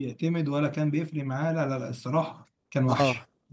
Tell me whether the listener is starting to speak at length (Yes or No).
Yes